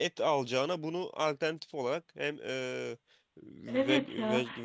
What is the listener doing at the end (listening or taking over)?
taking over